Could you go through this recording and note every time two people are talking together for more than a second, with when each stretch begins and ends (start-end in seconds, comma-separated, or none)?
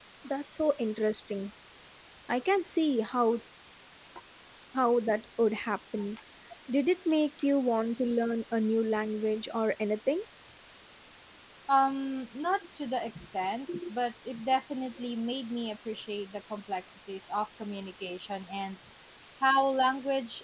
none